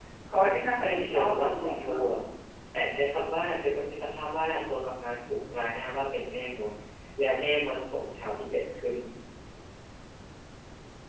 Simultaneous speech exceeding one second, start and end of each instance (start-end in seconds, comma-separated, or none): 0.8-2.1